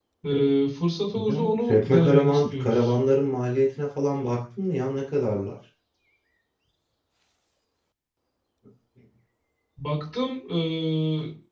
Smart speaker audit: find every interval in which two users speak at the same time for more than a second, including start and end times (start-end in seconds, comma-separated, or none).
1.1-2.9